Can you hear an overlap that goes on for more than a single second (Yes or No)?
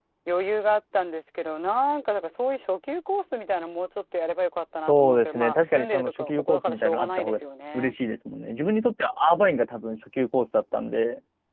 Yes